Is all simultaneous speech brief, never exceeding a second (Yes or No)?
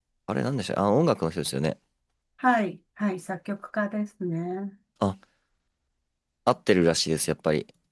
Yes